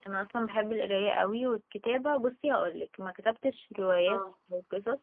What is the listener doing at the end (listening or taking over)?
listening